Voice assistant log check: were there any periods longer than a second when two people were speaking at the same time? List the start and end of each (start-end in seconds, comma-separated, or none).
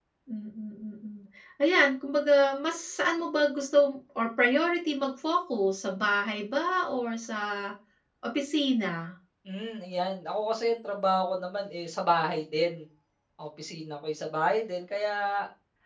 none